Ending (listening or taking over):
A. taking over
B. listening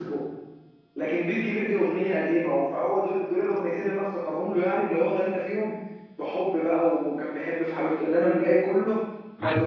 B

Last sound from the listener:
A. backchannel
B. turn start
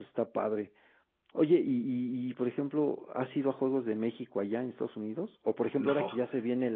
A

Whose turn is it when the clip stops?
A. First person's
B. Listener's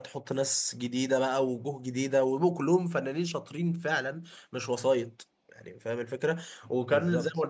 A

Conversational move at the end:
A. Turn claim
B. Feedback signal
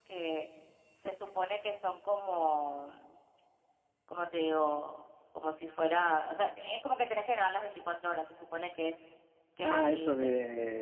A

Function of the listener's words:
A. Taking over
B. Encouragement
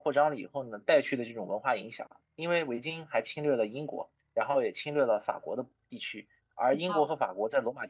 B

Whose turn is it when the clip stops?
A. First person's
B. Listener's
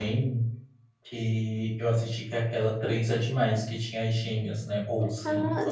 B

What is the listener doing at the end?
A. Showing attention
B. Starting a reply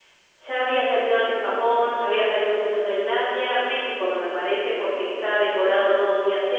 A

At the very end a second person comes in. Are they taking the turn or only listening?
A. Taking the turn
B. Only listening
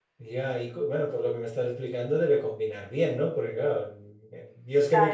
B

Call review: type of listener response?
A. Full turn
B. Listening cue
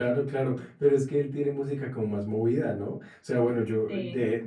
B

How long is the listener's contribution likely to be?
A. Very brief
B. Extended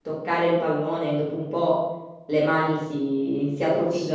B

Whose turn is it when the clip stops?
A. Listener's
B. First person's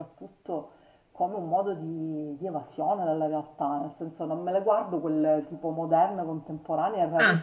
B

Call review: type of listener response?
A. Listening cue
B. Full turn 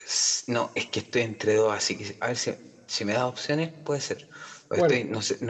A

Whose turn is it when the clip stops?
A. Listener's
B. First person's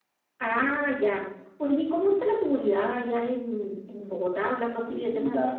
A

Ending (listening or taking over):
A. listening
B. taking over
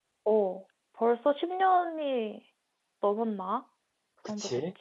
B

